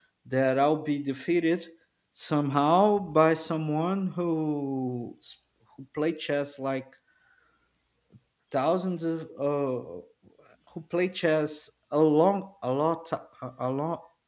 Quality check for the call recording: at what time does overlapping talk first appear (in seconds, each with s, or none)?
none